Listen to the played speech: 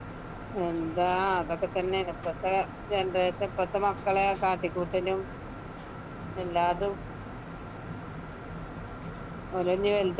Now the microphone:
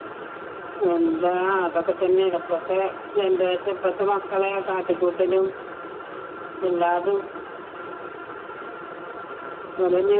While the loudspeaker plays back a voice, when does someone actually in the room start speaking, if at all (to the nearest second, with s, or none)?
none